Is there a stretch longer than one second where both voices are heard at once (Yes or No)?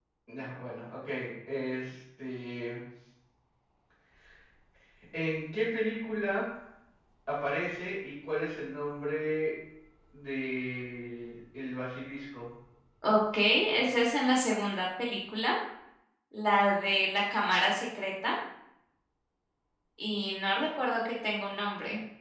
No